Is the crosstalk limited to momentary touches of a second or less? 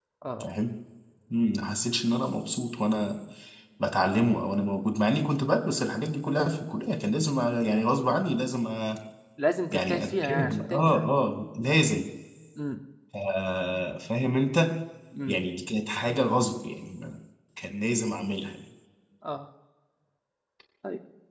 No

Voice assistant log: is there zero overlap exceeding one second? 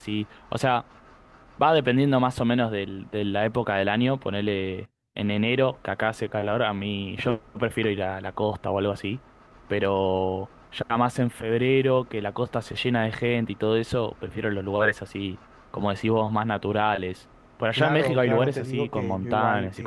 No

